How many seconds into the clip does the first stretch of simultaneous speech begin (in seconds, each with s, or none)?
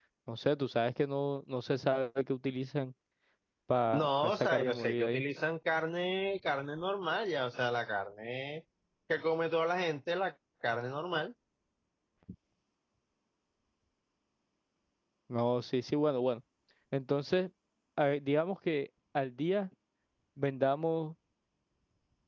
3.9 s